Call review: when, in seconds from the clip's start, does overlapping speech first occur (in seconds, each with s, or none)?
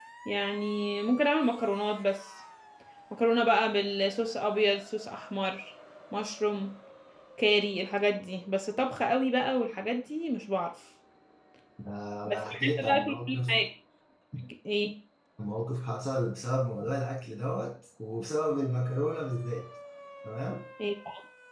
12.3 s